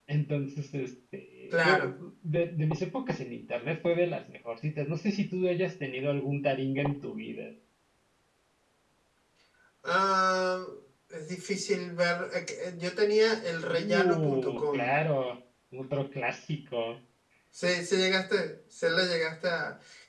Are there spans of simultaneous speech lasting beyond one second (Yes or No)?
Yes